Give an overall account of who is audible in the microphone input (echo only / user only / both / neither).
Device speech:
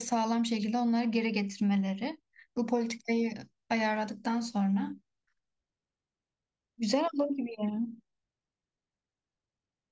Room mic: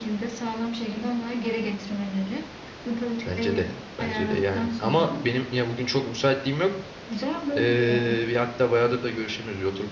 both